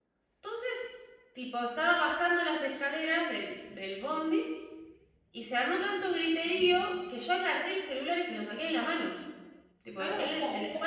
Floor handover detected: Yes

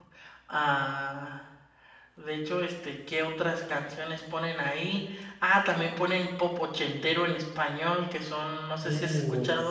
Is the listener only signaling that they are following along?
Yes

